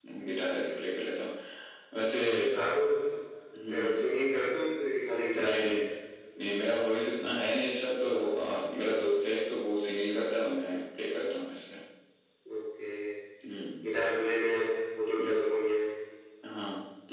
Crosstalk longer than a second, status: none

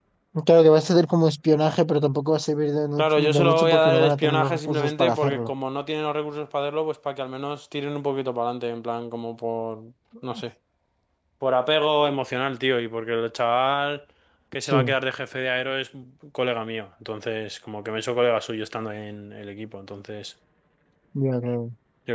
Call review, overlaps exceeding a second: present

